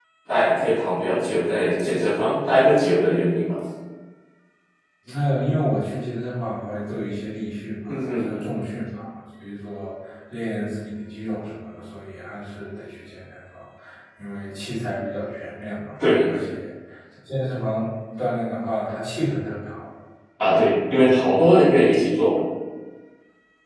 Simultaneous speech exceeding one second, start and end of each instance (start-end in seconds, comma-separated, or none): none